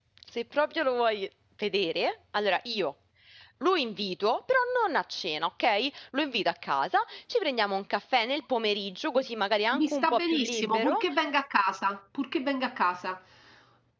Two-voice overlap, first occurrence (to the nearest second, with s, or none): 10 s